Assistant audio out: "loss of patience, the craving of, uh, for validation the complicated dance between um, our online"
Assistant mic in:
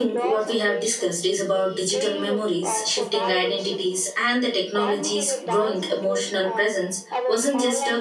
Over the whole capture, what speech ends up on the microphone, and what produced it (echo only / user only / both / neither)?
both